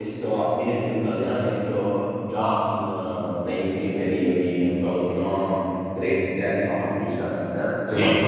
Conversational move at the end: listening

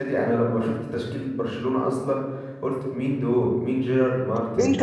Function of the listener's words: taking over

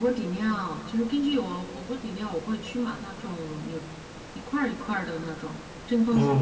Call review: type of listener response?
taking over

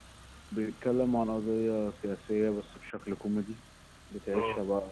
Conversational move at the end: listening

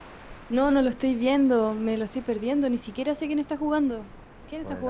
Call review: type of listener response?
taking over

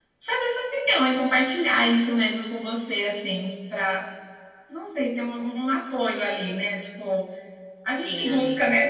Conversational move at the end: listening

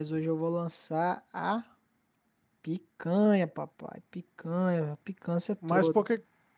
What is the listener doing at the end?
taking over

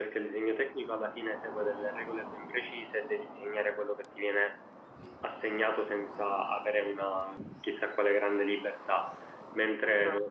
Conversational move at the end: listening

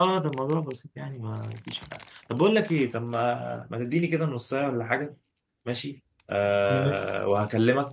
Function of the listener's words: listening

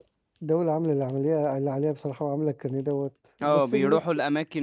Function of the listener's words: taking over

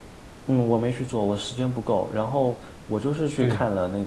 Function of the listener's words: listening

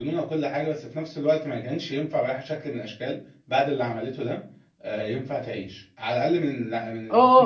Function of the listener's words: taking over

